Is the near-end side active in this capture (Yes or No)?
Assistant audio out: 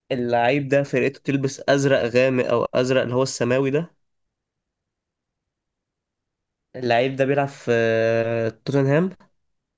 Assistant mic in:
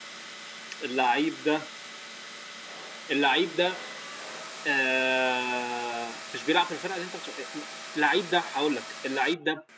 Yes